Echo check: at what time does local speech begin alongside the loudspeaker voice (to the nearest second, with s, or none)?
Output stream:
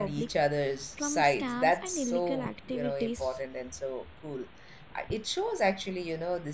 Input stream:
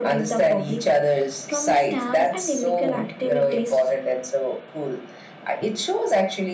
none